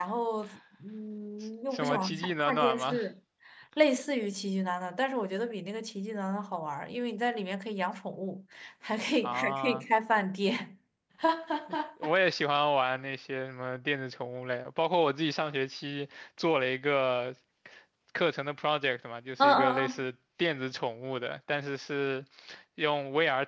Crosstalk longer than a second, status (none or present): present